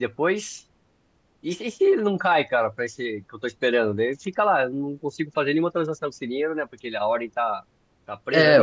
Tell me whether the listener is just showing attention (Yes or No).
No